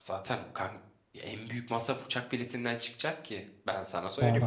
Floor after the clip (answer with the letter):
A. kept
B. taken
B